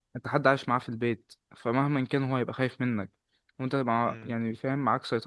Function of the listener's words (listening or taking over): listening